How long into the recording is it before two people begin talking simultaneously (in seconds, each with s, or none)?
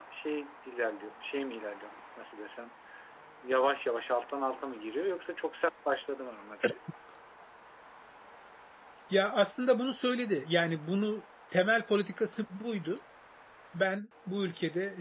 none